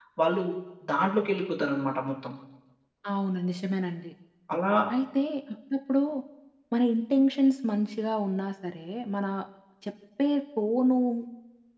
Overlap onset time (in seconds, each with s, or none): none